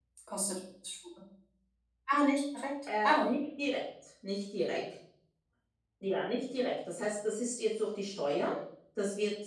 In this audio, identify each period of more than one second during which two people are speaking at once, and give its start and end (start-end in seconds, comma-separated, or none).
none